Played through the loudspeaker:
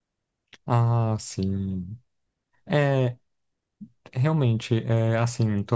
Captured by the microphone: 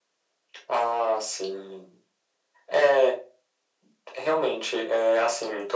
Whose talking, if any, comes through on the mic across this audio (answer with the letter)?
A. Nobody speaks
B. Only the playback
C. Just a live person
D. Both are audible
B